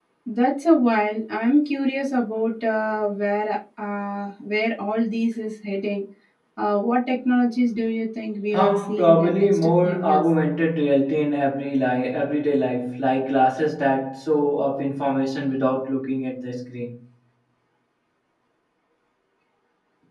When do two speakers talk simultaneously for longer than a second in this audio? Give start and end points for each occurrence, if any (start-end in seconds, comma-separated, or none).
8.5-10.2